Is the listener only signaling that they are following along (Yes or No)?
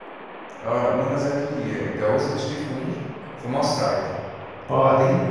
Yes